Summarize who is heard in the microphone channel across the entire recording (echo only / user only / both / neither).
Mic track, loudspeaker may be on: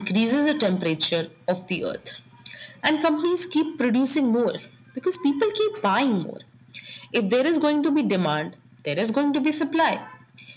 echo only